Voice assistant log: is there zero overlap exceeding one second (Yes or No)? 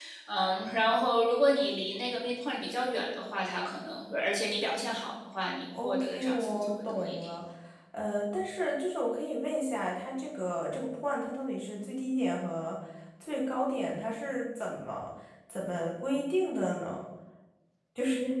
No